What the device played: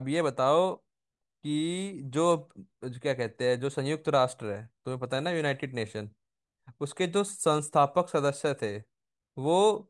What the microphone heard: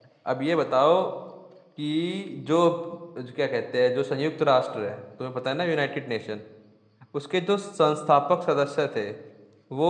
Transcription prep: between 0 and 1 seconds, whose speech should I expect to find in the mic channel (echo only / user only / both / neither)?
echo only